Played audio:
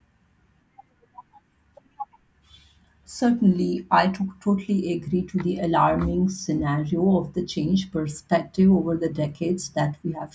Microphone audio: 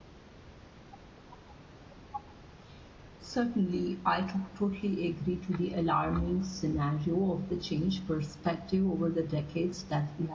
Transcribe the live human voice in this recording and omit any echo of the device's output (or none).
none